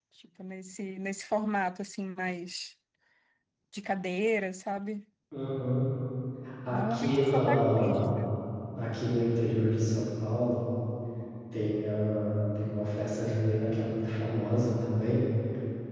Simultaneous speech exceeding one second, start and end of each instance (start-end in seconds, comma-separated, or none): 6.7-8.0